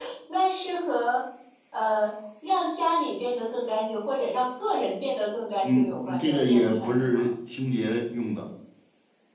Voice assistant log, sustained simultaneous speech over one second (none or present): present